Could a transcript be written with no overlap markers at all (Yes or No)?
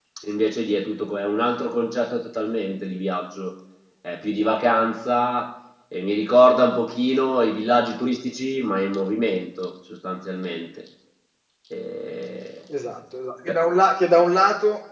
Yes